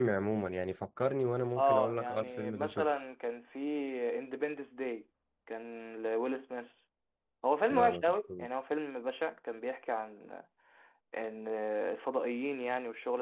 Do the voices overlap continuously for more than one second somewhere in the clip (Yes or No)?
Yes